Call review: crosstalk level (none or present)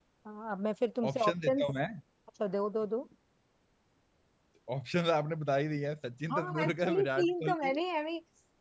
present